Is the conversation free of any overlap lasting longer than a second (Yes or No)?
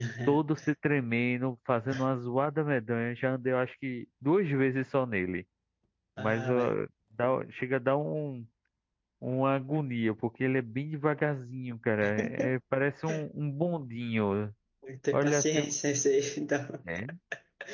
Yes